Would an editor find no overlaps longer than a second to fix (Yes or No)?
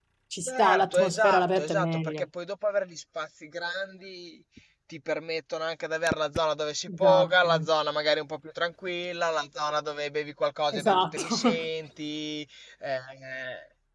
No